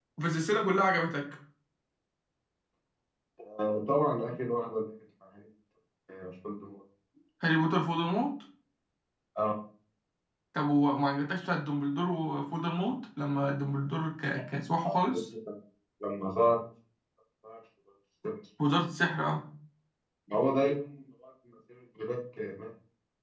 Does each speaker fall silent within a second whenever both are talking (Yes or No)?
Yes